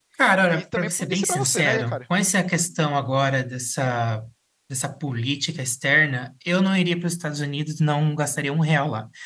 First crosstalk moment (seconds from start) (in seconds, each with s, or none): 0.5 s